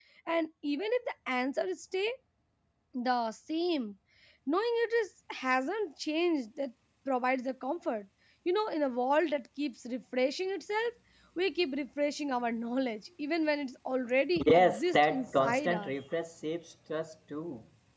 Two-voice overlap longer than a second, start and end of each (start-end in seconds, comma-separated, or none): 14.4-15.9